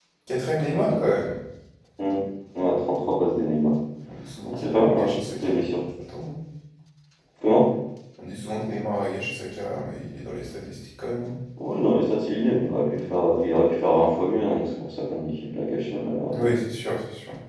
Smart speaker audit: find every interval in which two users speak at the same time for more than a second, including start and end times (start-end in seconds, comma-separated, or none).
4.5-5.8